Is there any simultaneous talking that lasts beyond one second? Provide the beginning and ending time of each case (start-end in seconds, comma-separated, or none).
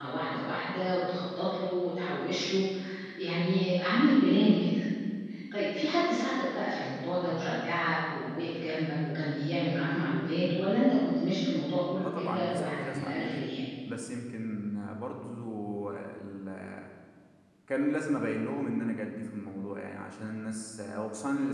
12.0-13.4